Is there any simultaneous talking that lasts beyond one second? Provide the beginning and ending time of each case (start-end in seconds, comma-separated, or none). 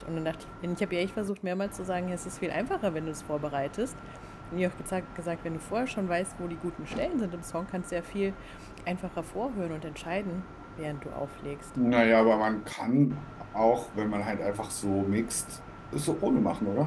none